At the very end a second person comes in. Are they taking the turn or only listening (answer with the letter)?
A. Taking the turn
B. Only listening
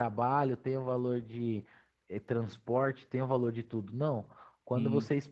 B